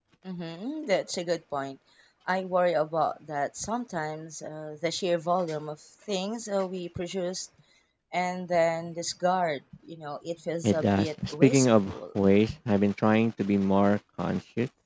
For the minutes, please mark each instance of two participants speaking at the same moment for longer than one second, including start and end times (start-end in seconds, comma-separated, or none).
10.7-12.0